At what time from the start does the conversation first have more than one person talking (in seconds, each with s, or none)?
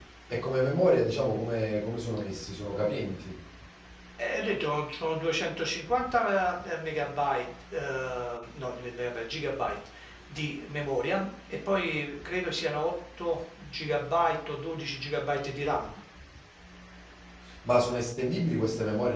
none